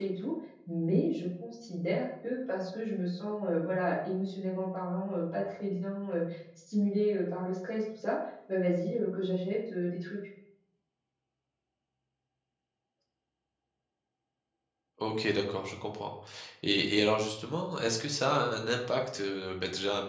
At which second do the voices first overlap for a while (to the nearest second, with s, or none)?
none